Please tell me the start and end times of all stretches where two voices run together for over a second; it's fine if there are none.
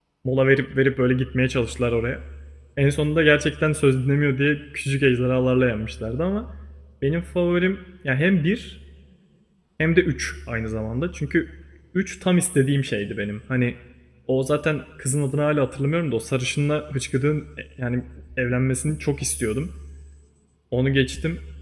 none

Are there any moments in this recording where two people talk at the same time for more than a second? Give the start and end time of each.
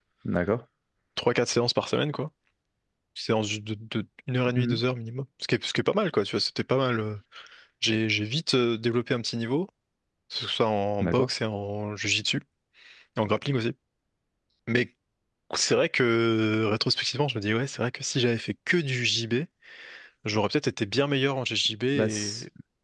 none

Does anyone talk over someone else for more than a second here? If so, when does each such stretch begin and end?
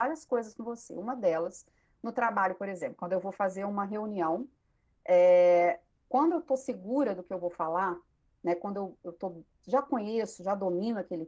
none

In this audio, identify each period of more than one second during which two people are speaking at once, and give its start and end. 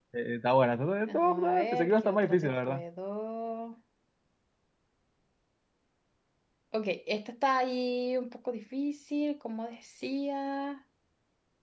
1.1-2.8

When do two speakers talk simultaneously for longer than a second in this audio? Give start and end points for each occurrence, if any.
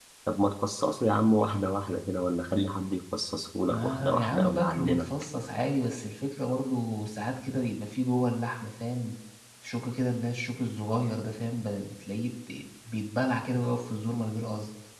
3.7-5.1

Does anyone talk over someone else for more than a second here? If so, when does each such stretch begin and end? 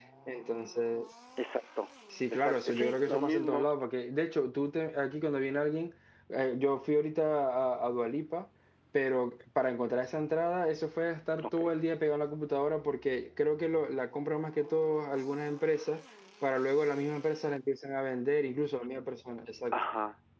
2.3-3.7

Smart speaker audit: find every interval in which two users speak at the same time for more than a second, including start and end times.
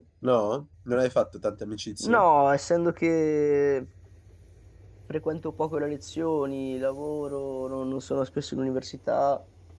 none

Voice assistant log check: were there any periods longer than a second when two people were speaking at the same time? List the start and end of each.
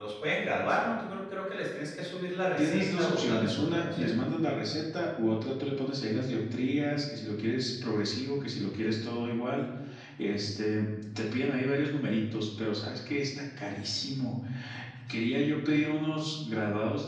2.6-4.1

